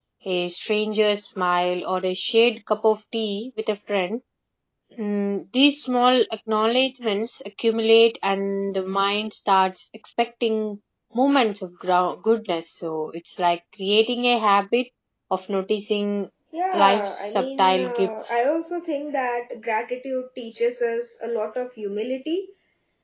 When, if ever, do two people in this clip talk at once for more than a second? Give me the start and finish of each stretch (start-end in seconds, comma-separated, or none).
16.7-18.4